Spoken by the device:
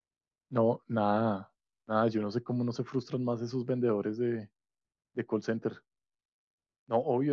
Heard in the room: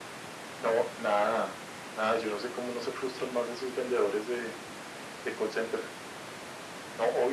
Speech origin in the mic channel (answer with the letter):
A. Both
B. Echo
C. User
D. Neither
B